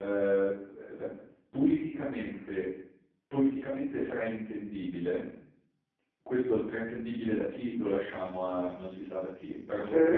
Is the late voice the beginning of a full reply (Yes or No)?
No